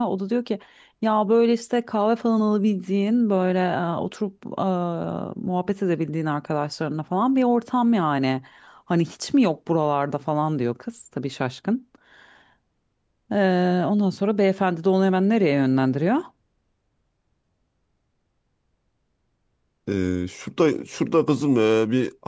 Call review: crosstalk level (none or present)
none